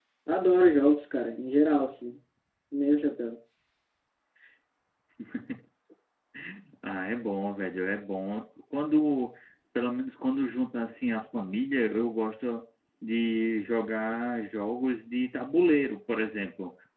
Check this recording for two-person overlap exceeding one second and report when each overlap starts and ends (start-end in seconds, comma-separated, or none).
none